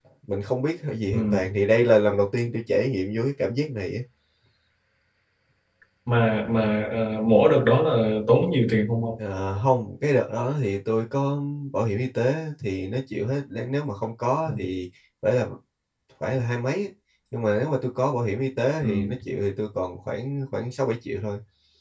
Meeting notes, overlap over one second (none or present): none